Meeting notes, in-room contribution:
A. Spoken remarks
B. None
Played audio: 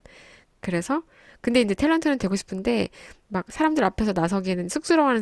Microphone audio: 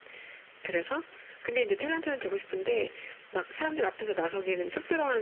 B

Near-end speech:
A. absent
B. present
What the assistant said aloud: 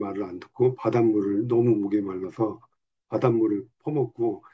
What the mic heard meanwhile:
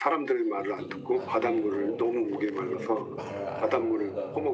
B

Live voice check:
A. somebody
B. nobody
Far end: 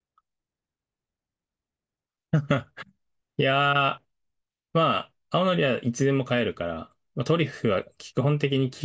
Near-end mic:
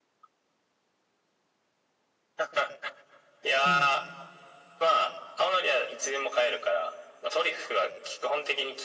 A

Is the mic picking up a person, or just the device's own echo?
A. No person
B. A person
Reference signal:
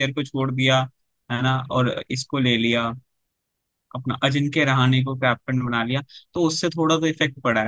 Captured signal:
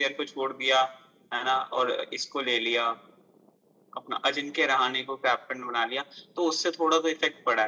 A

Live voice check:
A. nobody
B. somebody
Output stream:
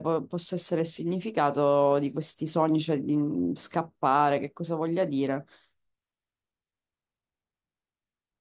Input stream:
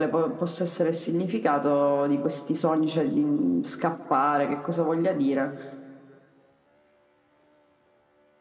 A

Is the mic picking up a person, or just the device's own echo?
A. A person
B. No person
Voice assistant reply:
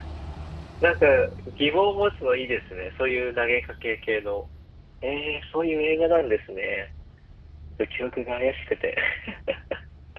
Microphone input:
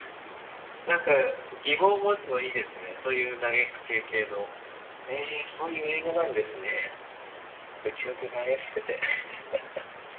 B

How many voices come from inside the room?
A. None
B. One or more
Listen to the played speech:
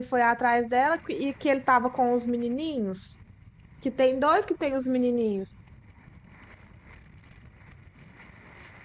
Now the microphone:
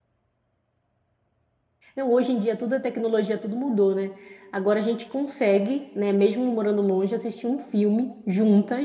B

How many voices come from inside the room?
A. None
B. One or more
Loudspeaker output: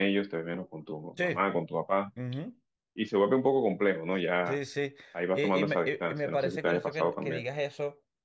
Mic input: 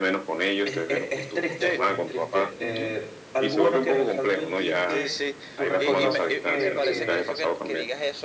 B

